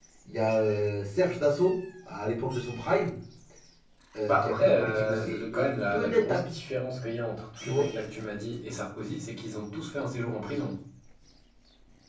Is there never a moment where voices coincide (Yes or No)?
No